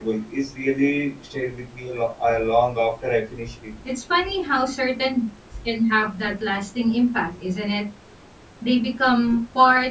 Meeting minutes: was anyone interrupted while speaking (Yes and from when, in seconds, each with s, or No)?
No